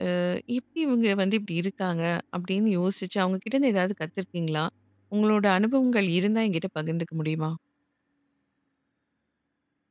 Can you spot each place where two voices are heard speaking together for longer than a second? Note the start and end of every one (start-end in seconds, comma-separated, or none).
none